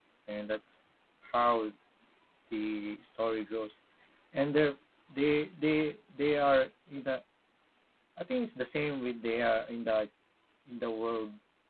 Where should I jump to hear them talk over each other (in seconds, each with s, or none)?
none